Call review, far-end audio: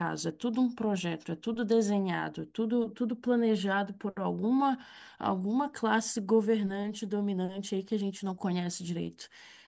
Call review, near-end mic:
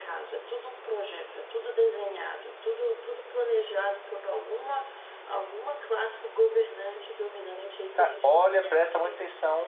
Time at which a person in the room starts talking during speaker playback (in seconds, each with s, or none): 7.9 s